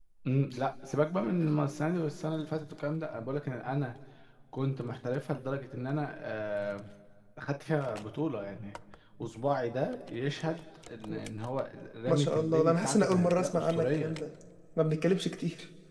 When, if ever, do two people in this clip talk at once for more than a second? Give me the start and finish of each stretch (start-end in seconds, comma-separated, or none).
12.1-14.1